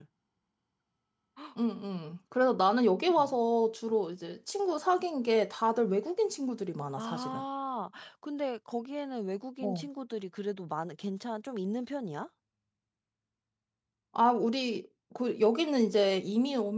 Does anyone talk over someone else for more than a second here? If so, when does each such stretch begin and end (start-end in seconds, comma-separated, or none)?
none